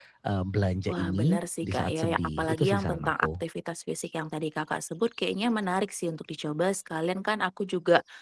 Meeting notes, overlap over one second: present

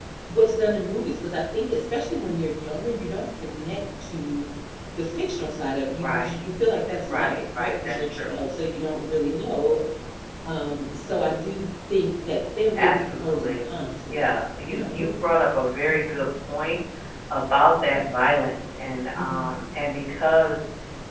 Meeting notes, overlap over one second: present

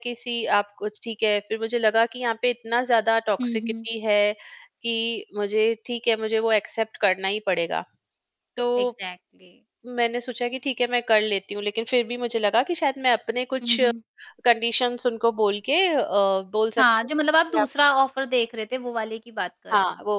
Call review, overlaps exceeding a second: none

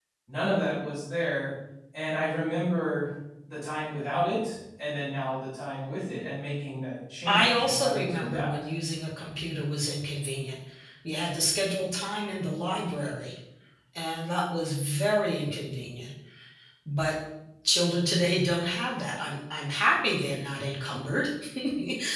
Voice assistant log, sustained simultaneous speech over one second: present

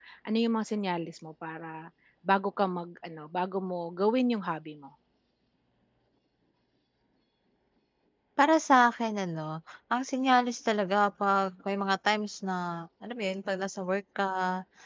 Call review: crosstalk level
none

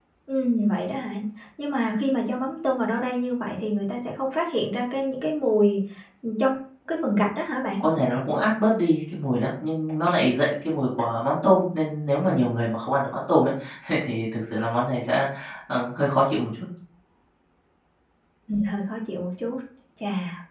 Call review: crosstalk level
none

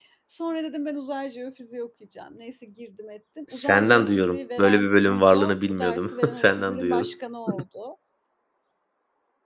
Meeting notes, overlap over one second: present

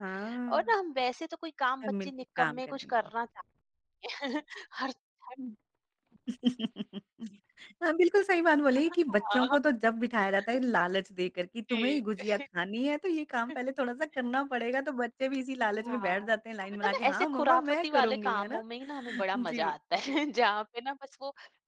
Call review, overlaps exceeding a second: present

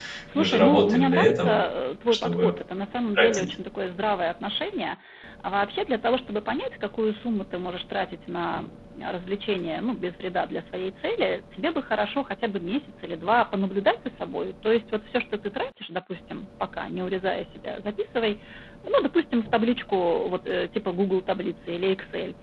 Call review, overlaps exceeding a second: present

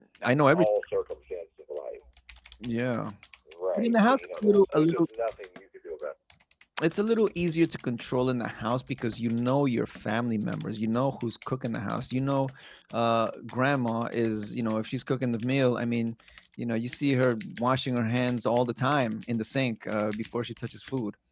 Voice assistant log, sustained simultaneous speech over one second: present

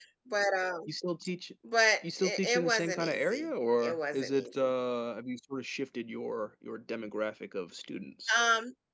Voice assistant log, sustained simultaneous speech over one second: present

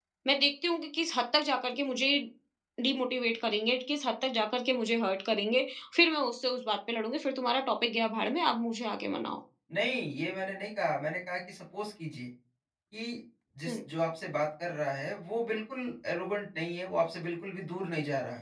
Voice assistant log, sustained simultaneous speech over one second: none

